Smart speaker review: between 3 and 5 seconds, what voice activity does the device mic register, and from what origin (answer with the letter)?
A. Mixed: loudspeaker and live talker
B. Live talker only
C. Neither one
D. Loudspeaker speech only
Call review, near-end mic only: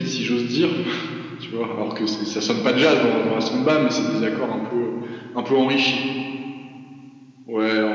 D